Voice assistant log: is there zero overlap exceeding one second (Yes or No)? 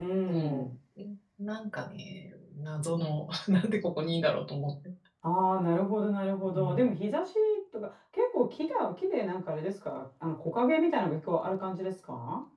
Yes